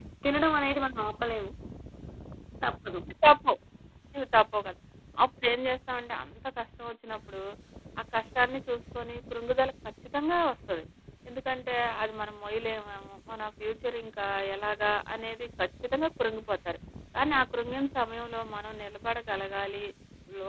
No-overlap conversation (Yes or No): Yes